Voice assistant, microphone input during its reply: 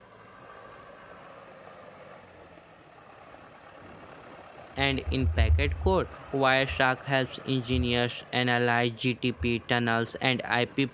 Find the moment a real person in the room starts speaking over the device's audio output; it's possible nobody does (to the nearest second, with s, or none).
5 s